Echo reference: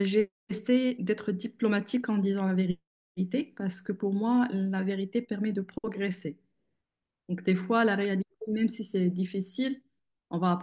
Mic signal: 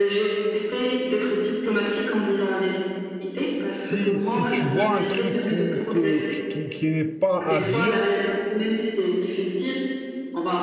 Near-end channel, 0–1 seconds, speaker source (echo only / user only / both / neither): echo only